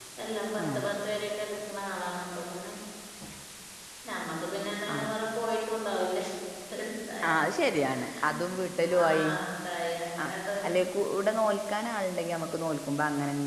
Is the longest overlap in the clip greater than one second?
No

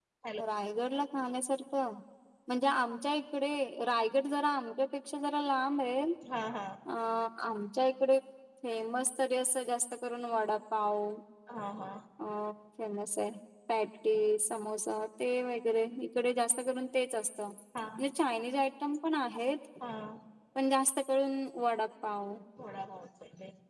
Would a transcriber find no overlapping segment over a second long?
Yes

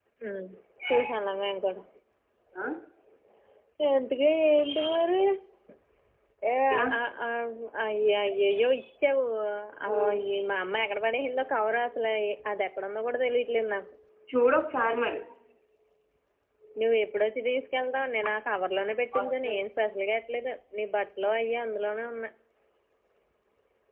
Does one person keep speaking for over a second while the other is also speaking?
No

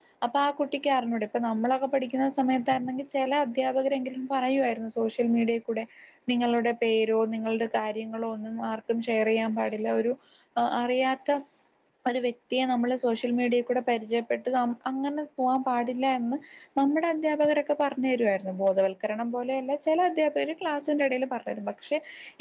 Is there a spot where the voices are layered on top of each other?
No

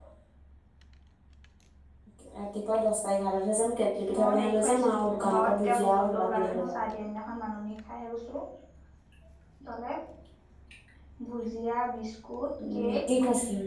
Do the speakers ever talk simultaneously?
Yes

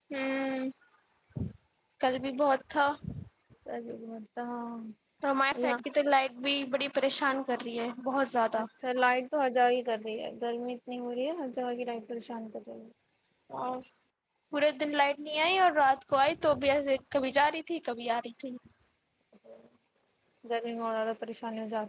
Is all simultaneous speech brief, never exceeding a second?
Yes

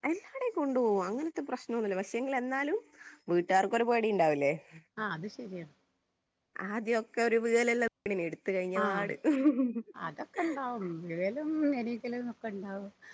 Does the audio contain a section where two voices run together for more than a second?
No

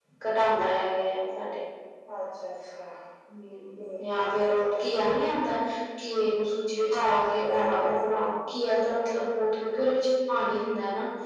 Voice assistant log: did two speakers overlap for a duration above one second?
Yes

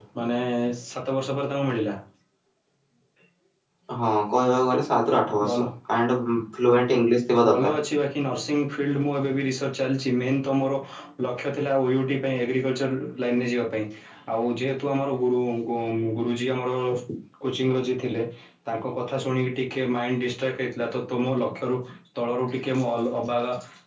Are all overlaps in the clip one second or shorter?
Yes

